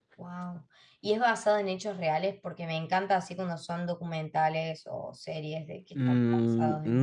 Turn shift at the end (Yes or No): Yes